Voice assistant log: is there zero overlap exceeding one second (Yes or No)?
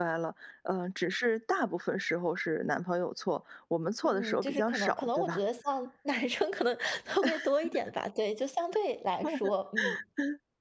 No